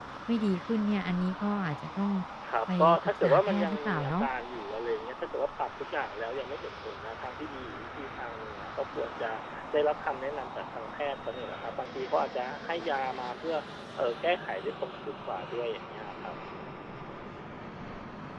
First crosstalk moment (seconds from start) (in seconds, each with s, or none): 2.8 s